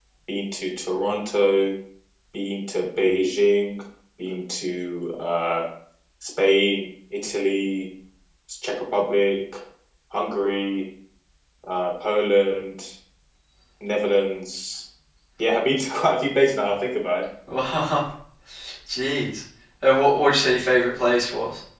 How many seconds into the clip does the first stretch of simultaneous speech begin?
none

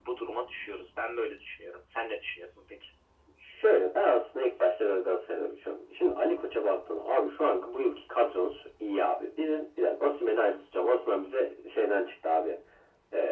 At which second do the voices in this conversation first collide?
none

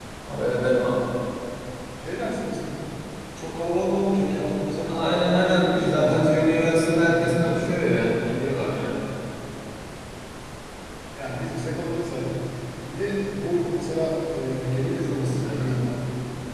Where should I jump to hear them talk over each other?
4.8 s

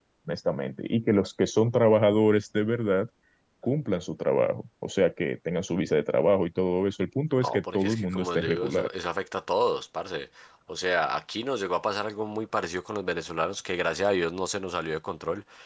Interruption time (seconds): 7.4 s

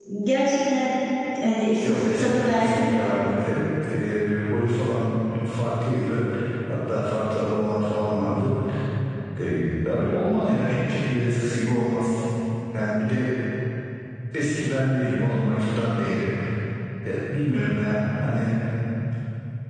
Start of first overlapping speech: 1.9 s

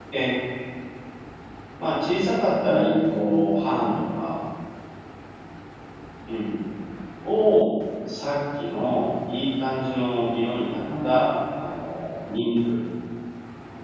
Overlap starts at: 2.7 s

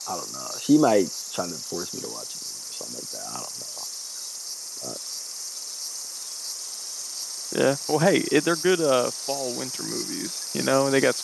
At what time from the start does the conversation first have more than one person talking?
none

